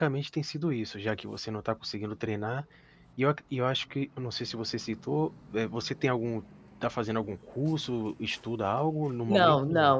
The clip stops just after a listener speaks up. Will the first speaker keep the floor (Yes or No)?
No